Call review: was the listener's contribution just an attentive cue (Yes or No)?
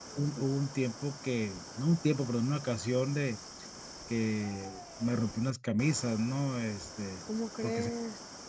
Yes